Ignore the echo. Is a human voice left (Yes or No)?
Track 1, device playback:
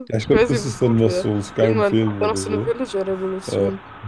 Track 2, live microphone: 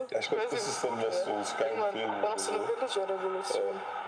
No